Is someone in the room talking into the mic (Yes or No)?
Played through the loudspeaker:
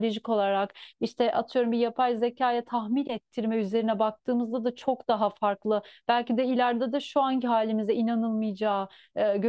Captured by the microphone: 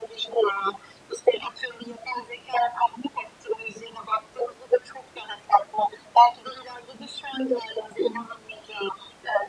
No